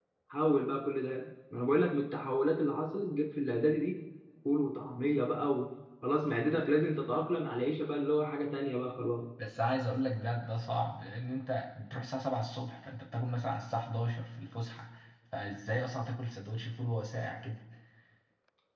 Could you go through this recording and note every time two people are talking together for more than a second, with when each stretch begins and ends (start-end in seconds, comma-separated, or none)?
none